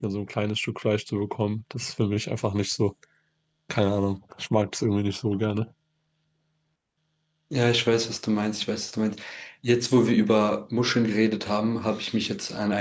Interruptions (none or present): none